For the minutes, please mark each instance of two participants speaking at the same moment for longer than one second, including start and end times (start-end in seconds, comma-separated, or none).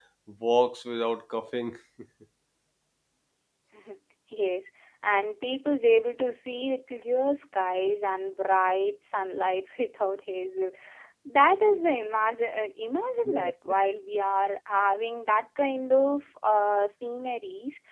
none